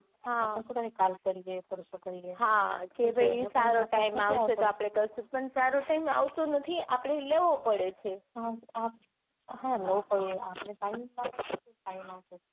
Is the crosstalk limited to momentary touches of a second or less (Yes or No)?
No